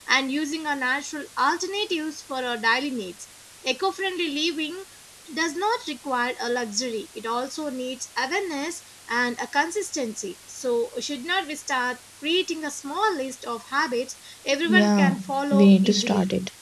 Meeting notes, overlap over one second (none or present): present